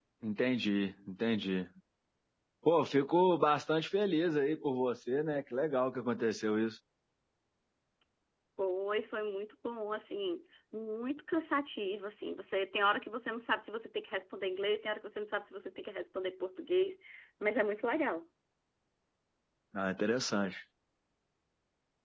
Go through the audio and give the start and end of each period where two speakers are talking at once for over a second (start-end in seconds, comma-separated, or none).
none